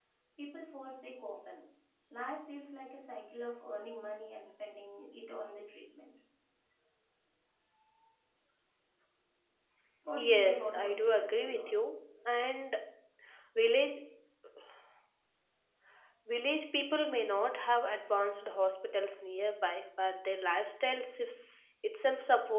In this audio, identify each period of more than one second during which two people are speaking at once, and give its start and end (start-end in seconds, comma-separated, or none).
10.2-11.8